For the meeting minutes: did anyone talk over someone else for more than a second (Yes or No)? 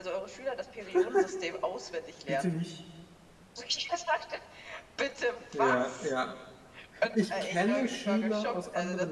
Yes